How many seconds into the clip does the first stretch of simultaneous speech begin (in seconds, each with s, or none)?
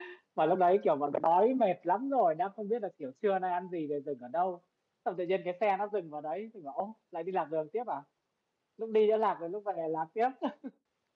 none